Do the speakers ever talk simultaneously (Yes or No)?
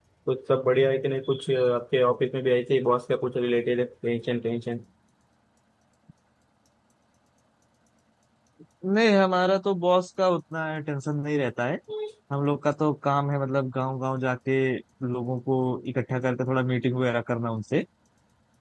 No